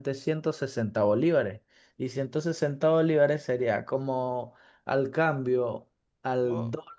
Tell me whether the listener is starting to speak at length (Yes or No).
No